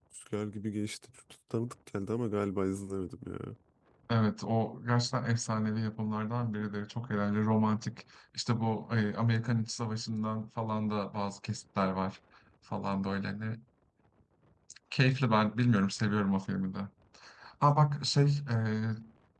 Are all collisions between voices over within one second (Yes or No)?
Yes